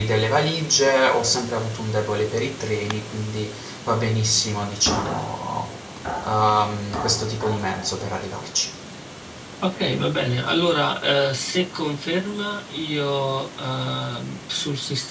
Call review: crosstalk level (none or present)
none